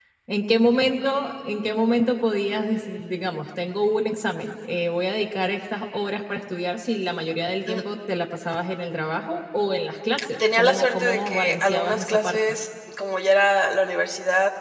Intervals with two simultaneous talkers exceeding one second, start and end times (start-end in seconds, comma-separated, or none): 10.6-12.4